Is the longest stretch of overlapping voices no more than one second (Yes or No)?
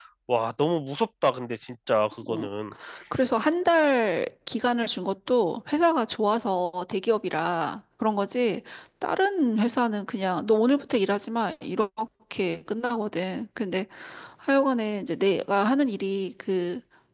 Yes